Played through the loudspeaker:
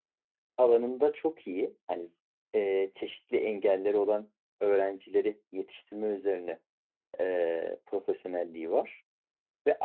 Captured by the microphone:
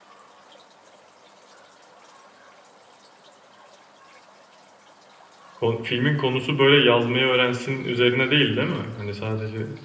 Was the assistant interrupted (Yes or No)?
Yes